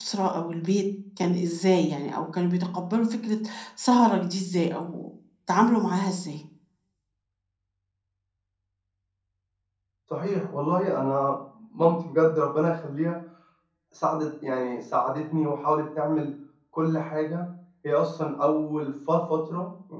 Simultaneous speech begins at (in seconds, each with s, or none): none